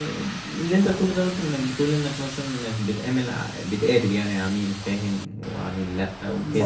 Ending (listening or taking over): taking over